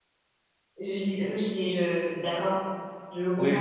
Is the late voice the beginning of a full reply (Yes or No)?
Yes